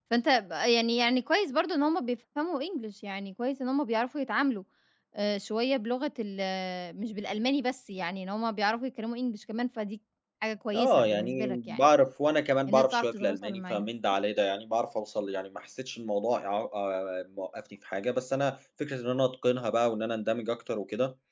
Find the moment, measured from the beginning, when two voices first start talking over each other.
11 s

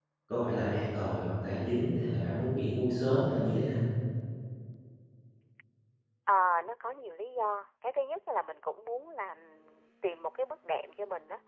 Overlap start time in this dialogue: none

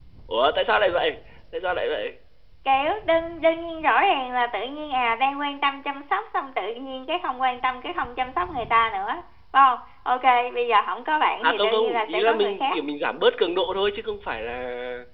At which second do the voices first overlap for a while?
11 s

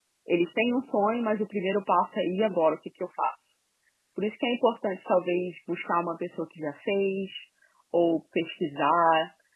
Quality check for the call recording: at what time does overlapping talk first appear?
none

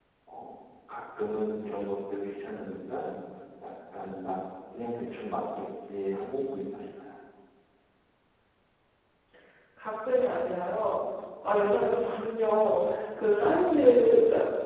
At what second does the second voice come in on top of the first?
none

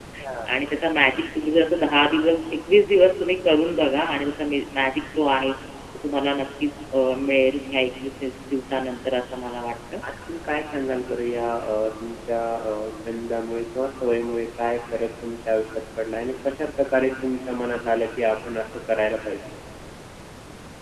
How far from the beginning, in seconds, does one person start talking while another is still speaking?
none

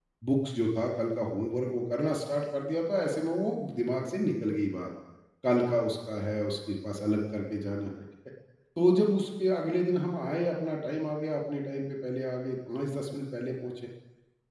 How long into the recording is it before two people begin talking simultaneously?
none

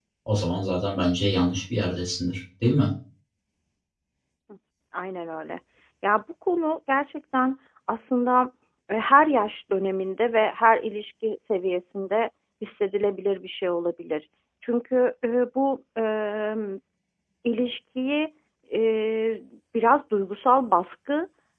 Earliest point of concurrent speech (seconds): none

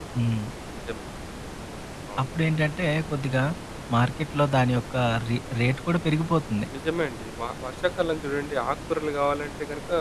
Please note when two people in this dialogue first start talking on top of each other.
none

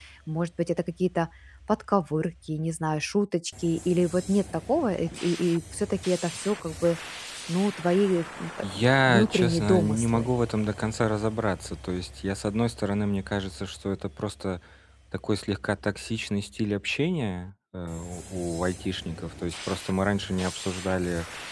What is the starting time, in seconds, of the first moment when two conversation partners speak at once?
9 s

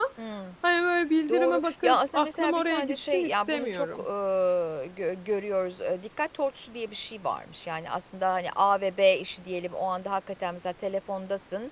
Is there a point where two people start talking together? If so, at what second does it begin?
1 s

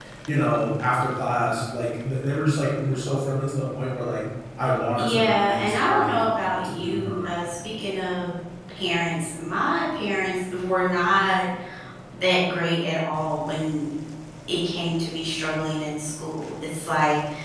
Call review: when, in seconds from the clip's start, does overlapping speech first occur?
5 s

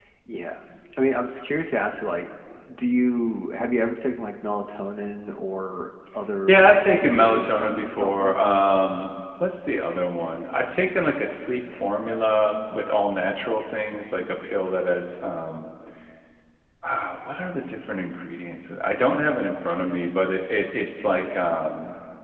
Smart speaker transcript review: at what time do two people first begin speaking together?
6 s

